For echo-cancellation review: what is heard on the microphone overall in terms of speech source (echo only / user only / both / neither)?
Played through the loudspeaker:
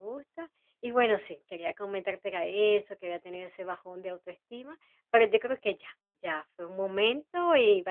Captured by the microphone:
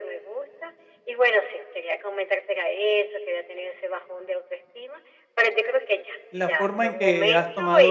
both